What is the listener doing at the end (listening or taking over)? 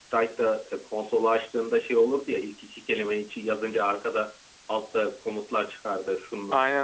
listening